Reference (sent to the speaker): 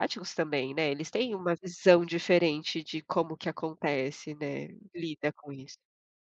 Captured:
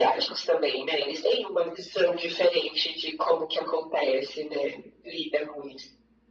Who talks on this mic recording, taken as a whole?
echo only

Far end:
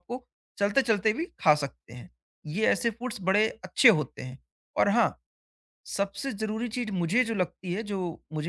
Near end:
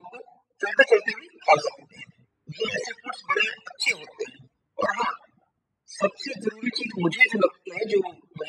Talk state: echo only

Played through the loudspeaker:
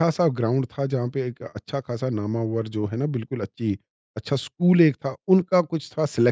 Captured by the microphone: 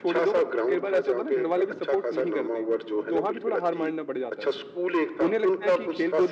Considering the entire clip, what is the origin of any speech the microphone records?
both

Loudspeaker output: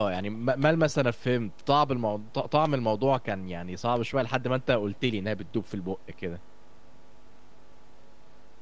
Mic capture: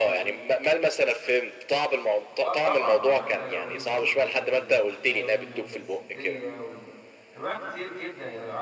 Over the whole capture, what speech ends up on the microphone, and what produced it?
both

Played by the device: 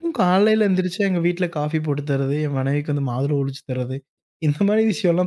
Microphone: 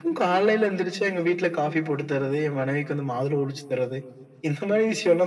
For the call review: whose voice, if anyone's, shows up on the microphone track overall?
echo only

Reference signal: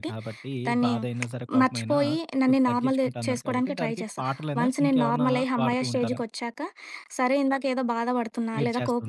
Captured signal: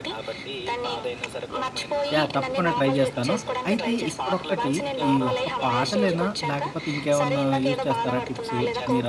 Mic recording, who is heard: both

